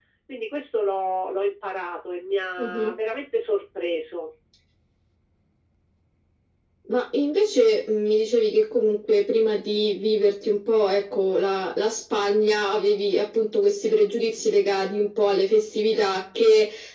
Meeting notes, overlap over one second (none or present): none